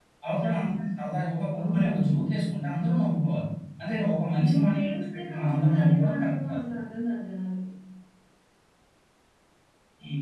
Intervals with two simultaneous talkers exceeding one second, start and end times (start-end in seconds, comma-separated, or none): 4.4-6.6